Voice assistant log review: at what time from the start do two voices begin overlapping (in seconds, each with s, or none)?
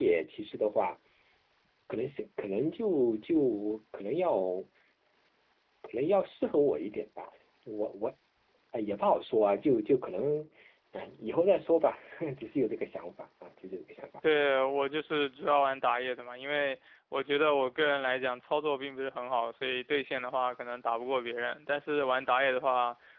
none